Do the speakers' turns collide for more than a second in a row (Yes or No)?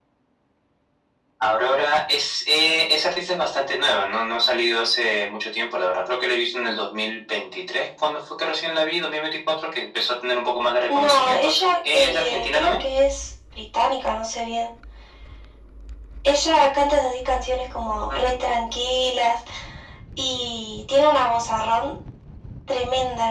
Yes